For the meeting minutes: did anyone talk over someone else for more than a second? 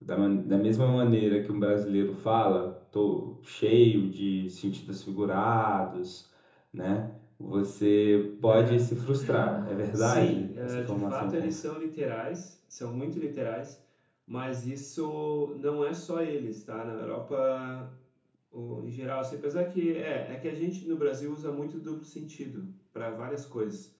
Yes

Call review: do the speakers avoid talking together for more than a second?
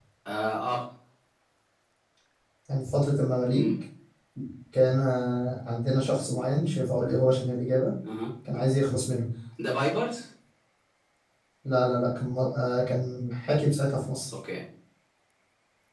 Yes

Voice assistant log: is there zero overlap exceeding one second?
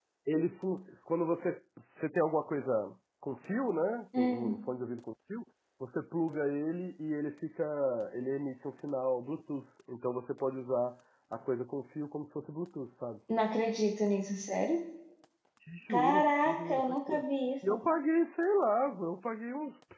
No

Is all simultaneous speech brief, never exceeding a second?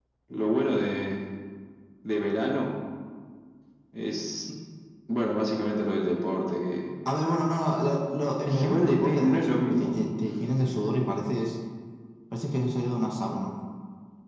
No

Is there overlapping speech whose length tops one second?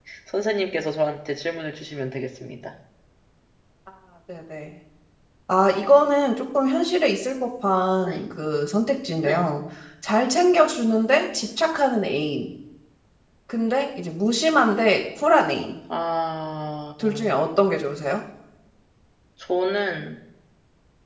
No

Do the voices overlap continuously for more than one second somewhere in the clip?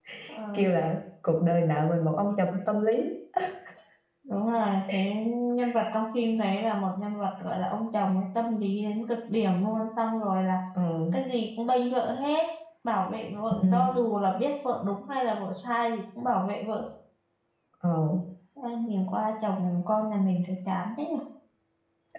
No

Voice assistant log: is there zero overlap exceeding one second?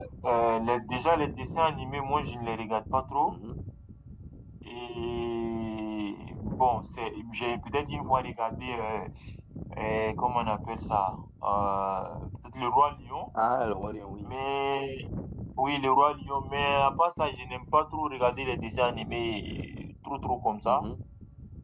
Yes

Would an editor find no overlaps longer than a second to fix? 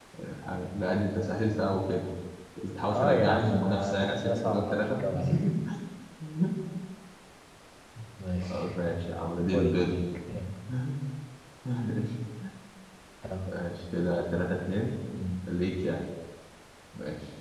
No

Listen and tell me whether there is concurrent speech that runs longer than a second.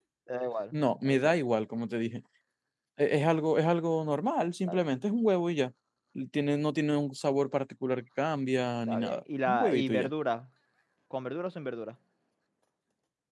Yes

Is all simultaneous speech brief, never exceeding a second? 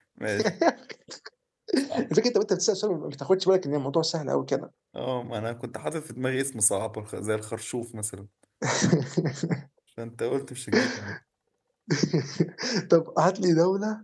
Yes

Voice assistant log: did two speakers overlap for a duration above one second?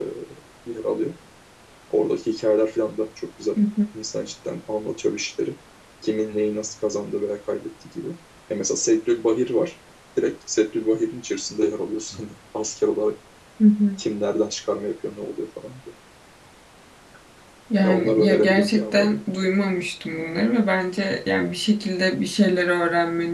Yes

